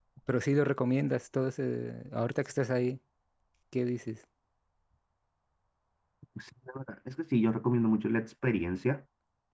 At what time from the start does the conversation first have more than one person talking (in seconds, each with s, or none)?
none